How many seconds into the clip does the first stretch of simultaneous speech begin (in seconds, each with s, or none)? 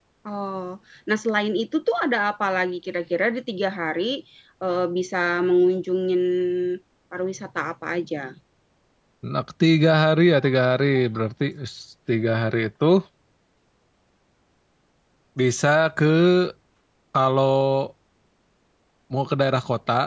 none